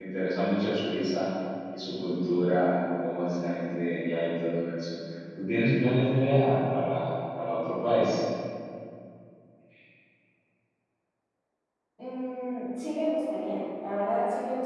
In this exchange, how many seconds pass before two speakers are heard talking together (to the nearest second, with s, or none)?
none